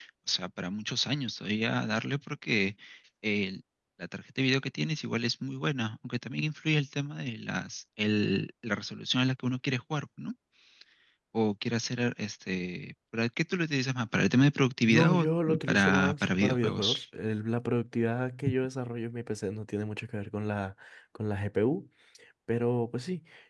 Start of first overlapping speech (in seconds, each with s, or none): 14.9 s